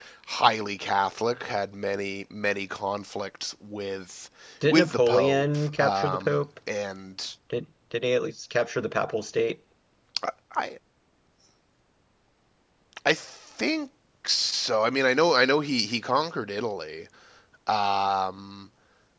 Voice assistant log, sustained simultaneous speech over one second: present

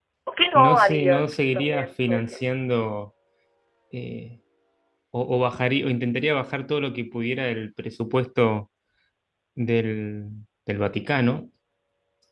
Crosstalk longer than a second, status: present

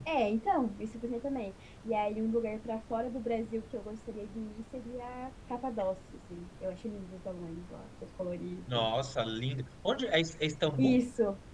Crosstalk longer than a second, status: none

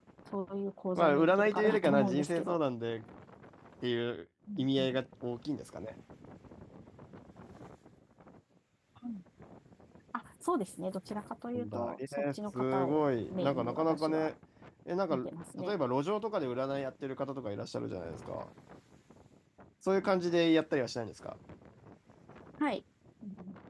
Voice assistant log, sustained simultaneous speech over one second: present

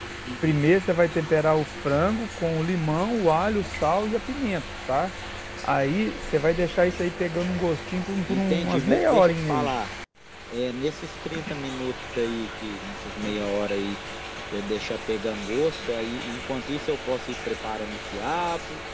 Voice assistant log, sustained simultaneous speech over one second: present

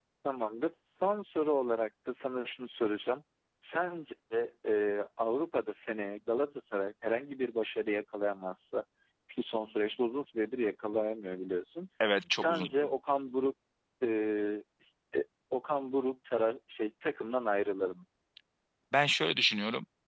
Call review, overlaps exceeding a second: none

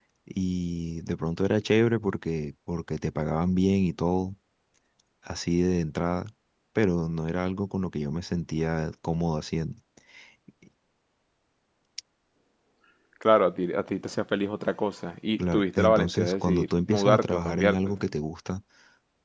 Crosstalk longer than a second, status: present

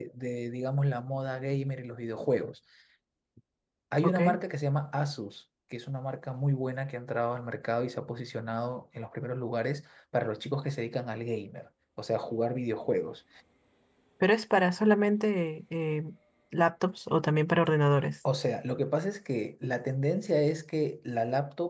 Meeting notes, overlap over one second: none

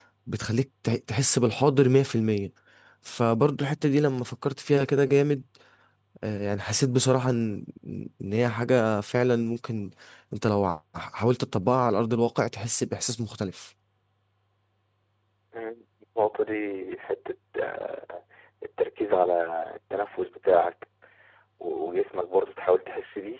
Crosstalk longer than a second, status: none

